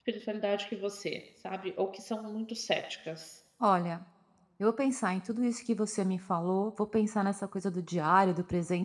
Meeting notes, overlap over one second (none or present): none